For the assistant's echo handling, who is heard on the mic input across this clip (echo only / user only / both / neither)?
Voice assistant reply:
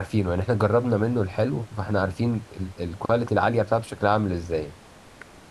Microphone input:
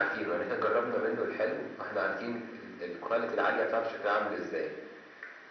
echo only